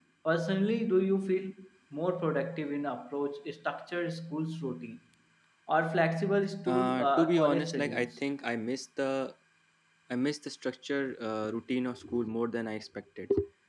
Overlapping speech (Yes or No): Yes